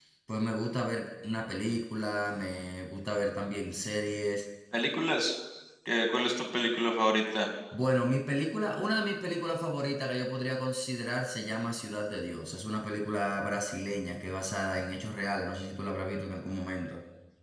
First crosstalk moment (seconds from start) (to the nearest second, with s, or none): none